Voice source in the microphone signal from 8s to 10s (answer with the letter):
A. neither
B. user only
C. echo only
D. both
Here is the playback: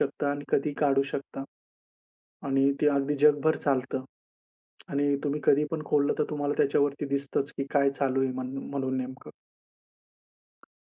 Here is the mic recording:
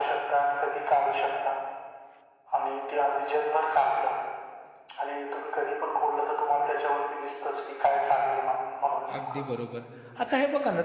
D